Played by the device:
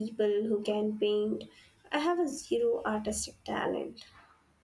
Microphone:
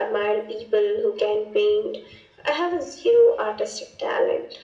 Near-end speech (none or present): none